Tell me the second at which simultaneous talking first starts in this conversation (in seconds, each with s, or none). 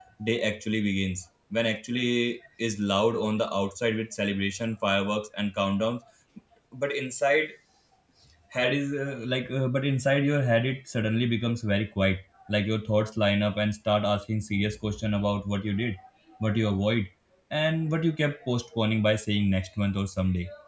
none